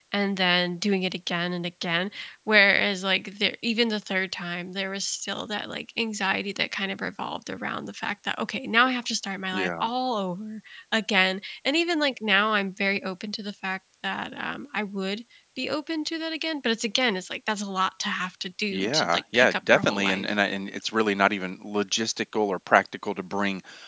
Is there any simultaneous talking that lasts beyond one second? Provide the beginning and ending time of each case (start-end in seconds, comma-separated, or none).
18.7-20.3